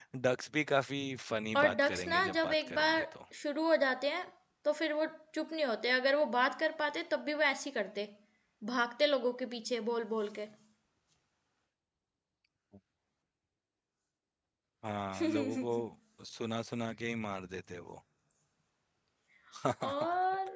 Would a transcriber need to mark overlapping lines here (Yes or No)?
Yes